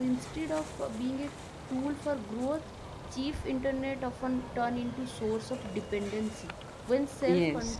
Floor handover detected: No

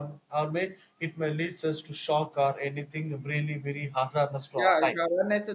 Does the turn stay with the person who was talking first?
No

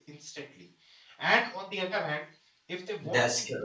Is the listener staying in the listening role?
Yes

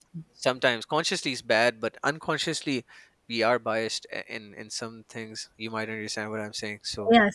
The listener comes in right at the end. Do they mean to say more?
Yes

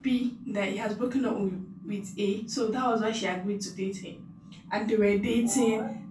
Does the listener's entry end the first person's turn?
No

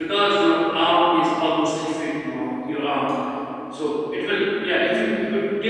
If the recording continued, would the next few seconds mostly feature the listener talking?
No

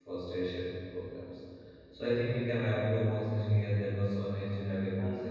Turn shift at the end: No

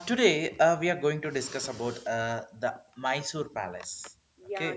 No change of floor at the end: No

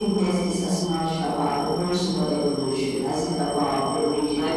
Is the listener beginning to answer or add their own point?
Yes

